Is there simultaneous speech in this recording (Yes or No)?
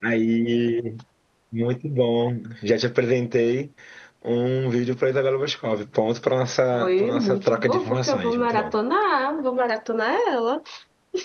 Yes